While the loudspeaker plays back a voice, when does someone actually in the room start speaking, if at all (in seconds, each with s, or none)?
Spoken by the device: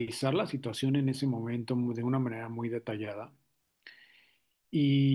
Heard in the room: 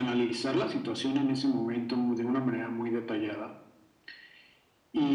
none